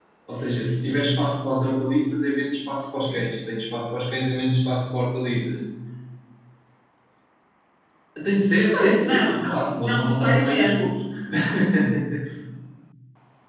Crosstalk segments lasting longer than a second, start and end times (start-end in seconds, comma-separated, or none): 8.7-10.9